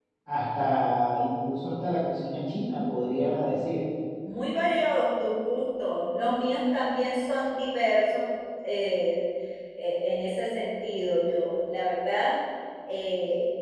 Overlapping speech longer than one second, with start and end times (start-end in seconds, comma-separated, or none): none